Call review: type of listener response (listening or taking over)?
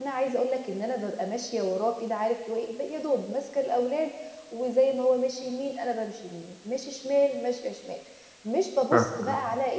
listening